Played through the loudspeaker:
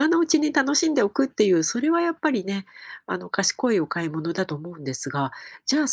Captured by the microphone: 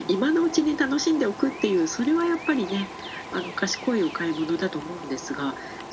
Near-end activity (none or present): none